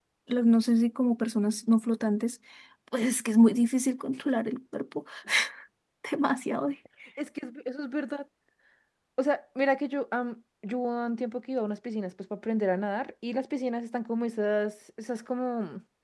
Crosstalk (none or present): none